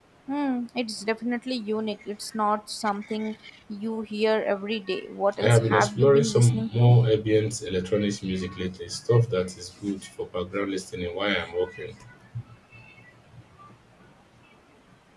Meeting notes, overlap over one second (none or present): present